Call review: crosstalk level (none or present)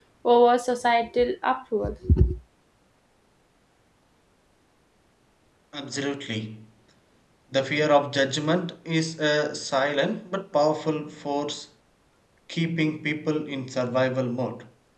none